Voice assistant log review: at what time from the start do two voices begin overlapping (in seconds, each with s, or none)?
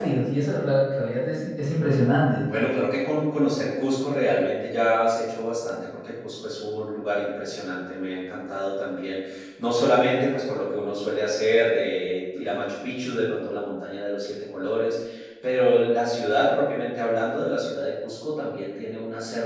none